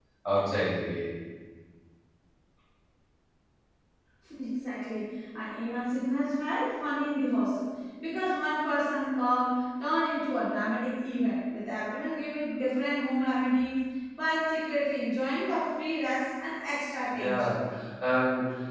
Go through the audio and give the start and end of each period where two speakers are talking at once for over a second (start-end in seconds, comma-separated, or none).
none